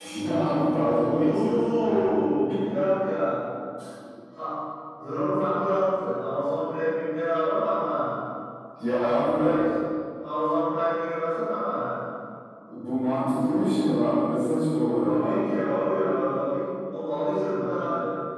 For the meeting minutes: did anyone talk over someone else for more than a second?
Yes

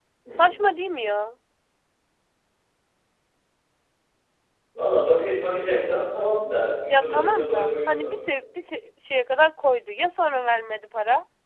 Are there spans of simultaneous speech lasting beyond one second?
Yes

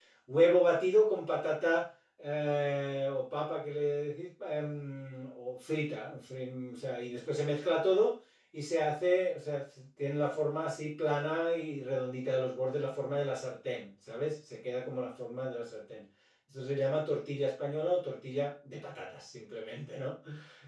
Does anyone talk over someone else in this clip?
No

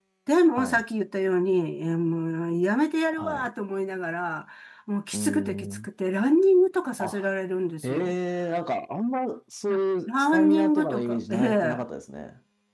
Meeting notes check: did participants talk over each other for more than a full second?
Yes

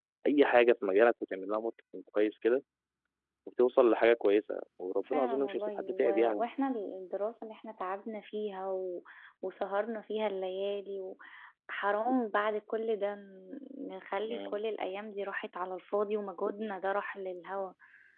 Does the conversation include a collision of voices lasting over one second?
Yes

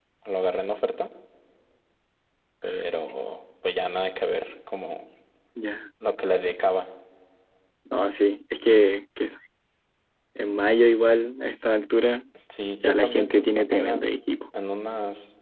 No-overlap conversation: No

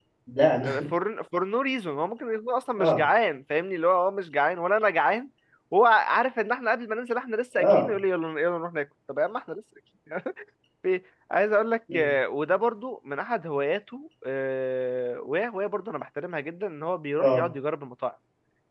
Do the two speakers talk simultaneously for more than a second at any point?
No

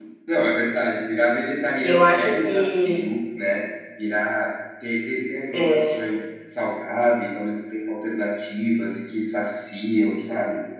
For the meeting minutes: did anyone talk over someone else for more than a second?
Yes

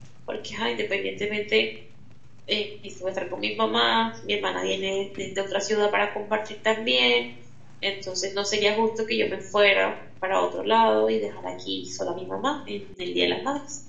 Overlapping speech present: No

